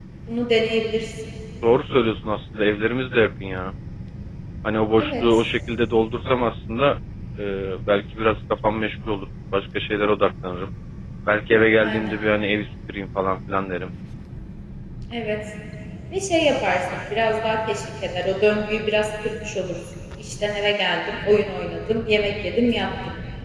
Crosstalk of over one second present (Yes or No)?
No